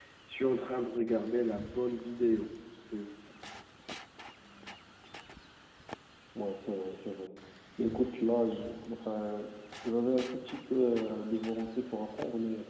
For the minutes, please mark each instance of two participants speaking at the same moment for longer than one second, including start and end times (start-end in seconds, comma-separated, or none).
none